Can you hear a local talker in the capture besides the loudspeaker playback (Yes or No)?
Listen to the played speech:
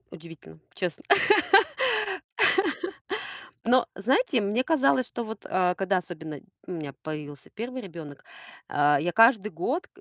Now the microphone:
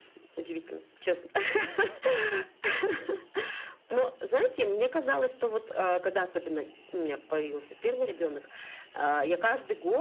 No